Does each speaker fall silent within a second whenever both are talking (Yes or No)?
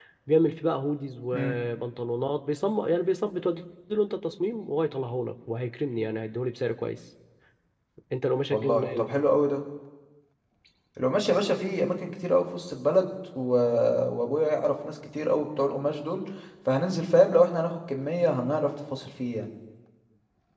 Yes